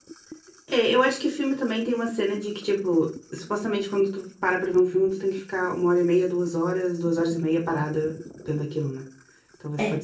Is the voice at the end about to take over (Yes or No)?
No